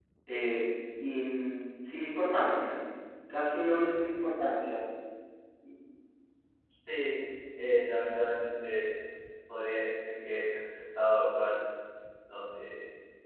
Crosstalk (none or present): none